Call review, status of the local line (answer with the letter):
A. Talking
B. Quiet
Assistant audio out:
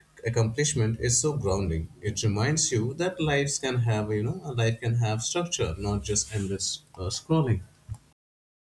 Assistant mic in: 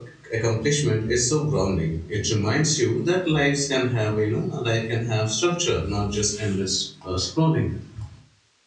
B